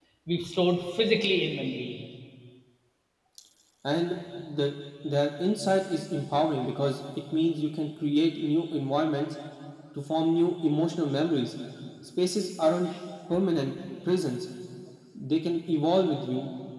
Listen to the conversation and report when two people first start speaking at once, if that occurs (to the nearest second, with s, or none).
none